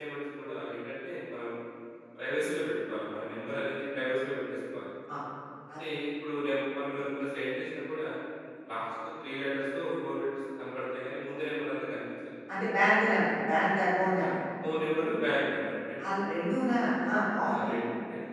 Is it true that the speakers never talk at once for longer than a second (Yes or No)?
Yes